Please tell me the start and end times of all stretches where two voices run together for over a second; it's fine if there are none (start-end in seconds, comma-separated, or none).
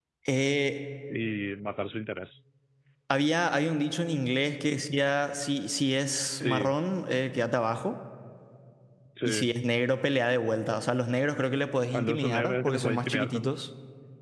11.9-13.5